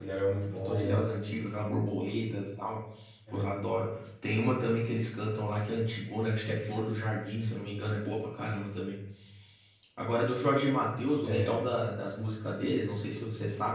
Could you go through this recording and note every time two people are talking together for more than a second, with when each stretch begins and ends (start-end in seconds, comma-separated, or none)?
none